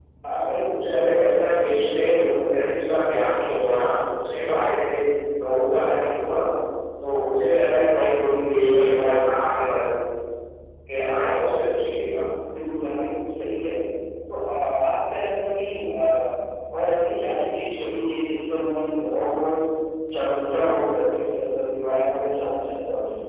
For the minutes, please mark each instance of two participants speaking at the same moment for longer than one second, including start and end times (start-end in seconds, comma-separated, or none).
none